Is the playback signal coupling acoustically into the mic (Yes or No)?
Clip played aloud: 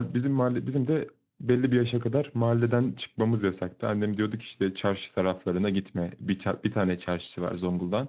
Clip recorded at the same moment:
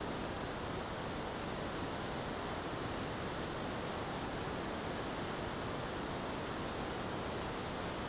No